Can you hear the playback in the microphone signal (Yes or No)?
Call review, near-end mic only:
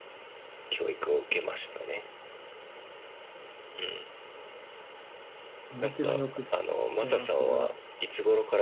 Yes